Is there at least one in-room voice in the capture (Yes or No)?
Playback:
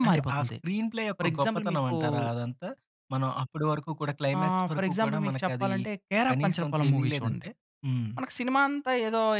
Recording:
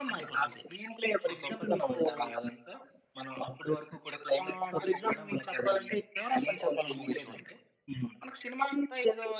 No